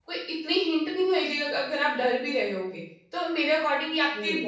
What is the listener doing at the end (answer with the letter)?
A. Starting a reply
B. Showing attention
B